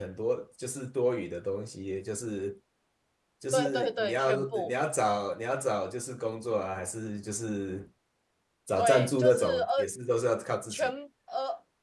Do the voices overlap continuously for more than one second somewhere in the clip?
Yes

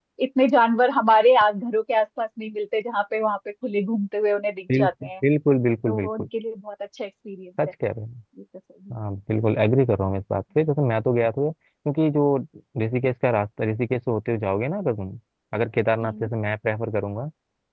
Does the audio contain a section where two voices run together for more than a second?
No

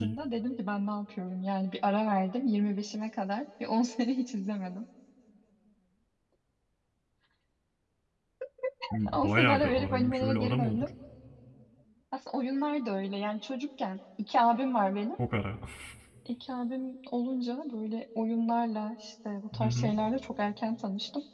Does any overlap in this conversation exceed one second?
Yes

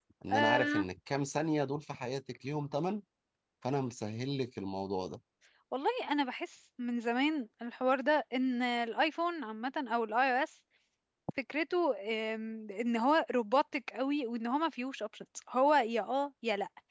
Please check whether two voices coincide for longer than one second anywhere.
No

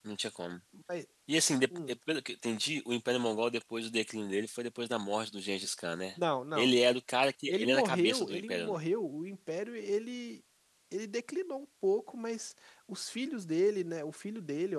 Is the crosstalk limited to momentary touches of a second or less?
No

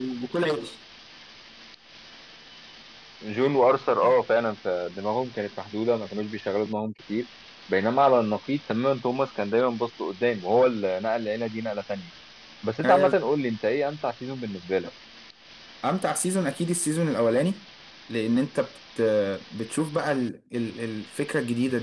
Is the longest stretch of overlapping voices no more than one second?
Yes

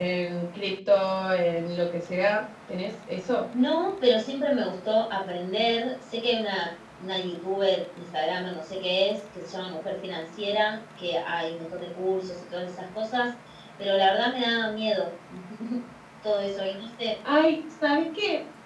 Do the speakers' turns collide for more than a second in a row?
No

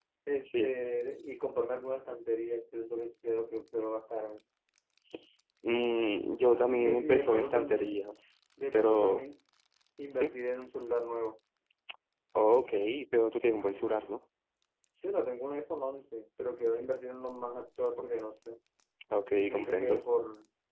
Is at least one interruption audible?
Yes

